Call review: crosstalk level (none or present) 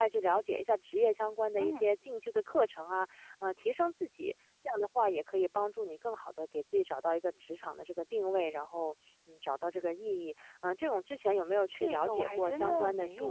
present